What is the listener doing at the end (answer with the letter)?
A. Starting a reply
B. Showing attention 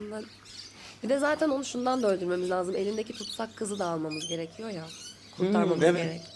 A